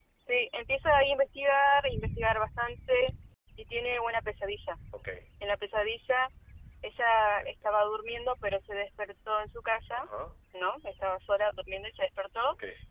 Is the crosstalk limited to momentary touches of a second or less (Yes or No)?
Yes